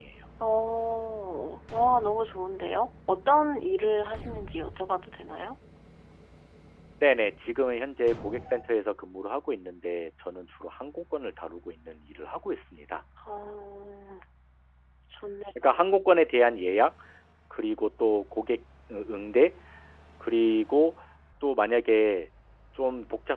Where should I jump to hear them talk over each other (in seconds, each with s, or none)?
none